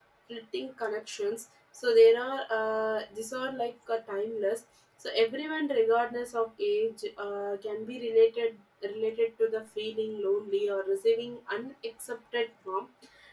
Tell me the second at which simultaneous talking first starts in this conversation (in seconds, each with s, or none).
none